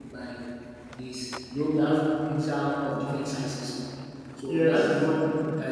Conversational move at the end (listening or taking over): listening